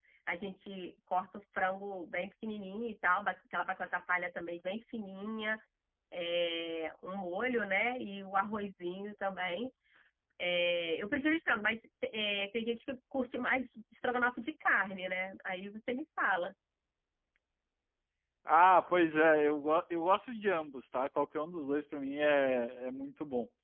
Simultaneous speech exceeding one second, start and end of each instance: none

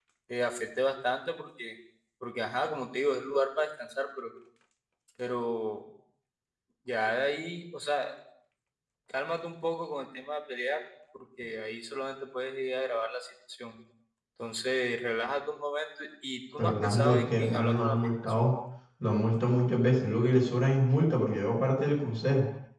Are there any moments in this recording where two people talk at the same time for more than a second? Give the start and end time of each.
16.6-18.3

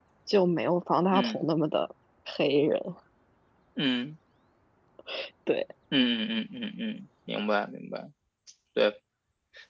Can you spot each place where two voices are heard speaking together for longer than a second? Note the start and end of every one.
none

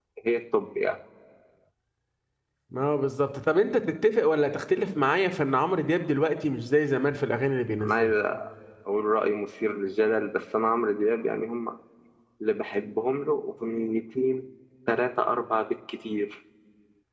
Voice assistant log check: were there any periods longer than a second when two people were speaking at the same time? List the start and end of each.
none

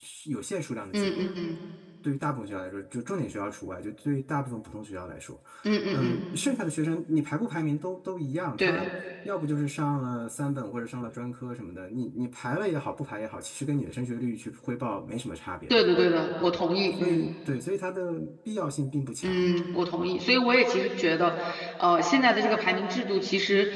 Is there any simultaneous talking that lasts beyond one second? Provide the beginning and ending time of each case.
none

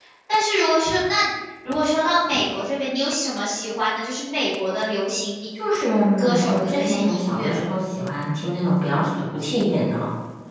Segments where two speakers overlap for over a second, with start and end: 6.2-7.5

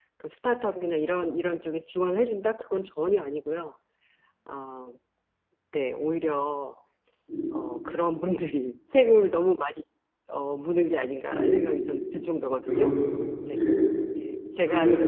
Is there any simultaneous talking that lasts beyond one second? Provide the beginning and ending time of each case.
none

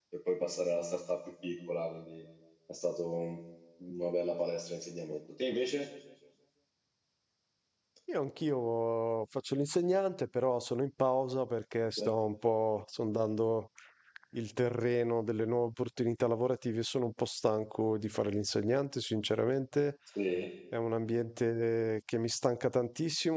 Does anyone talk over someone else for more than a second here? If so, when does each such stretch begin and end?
none

